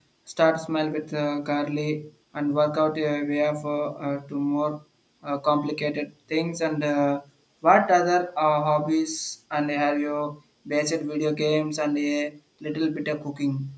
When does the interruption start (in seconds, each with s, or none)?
none